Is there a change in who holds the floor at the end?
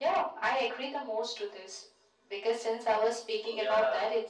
No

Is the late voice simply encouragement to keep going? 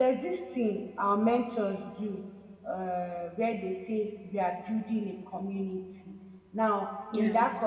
Yes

